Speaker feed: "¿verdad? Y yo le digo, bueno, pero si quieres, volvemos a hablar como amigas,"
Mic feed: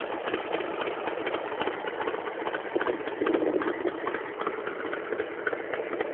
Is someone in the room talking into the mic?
No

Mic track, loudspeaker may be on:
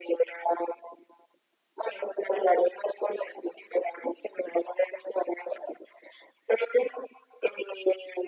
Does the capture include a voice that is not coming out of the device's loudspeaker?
No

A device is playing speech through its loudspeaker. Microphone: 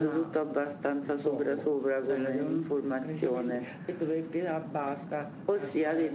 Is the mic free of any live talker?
No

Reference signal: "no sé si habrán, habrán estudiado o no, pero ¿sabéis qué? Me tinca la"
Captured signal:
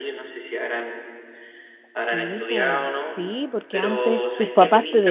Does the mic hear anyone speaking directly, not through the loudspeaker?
Yes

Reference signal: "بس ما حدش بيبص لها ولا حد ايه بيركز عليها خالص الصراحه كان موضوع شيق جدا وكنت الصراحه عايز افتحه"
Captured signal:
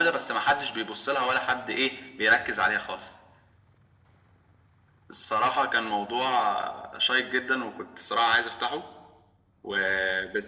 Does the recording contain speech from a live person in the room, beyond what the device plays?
No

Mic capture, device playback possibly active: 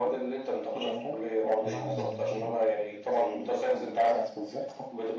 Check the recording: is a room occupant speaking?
Yes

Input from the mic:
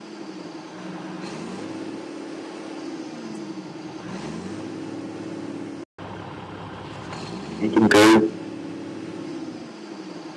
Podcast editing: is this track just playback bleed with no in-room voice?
No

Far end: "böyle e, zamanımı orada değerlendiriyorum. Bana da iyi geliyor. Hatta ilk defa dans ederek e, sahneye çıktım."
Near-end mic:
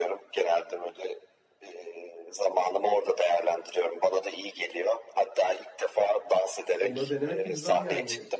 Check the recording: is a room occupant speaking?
Yes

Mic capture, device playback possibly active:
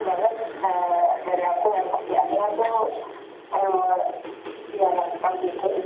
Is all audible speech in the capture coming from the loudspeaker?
Yes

